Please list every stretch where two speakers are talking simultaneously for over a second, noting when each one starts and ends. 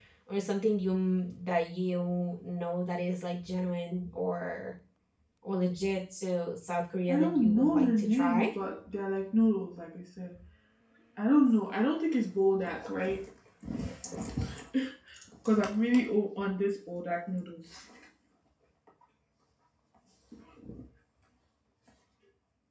7.1-8.5

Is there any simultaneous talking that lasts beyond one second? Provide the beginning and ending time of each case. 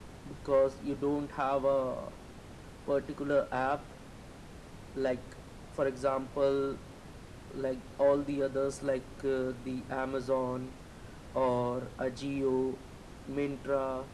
none

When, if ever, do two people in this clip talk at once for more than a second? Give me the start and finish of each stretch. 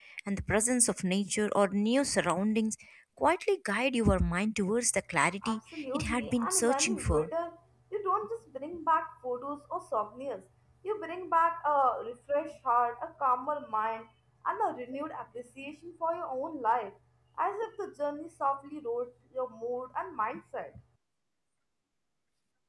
5.4-7.3

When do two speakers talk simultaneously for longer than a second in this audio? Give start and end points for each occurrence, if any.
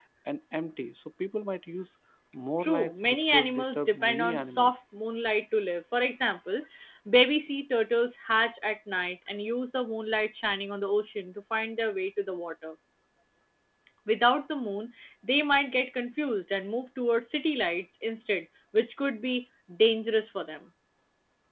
2.6-4.7

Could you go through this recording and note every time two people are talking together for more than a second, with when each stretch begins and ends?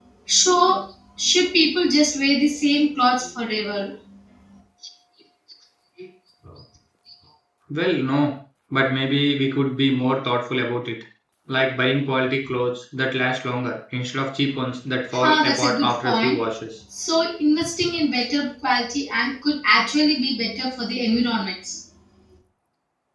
15.1-16.4

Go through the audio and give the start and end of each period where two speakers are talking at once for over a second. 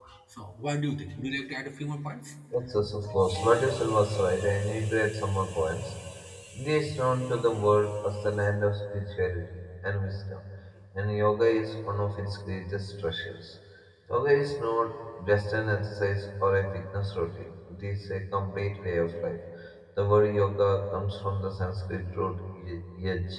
none

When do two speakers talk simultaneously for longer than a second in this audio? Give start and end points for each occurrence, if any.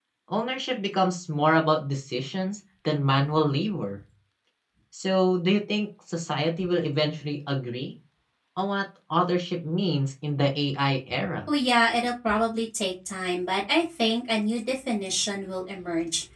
none

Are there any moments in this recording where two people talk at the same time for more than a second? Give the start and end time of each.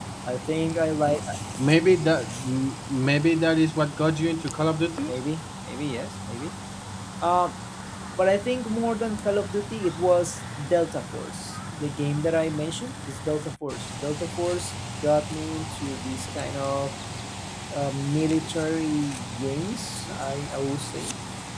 none

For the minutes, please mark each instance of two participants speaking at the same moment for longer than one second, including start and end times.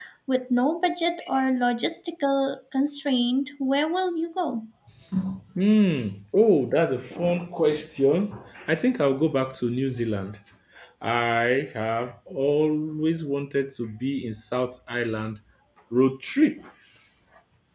none

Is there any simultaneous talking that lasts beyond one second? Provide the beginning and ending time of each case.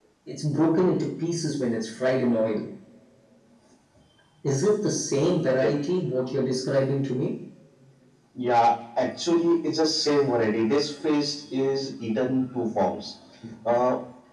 none

